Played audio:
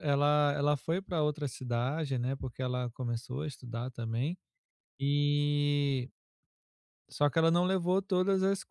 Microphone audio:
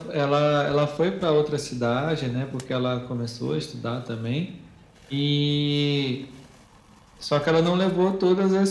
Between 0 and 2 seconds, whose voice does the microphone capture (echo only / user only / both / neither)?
echo only